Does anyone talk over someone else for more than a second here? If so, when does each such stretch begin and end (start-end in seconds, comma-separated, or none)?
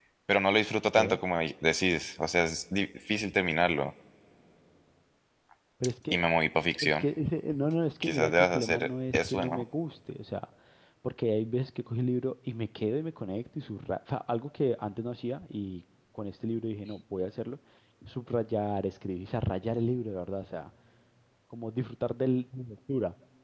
8.0-9.6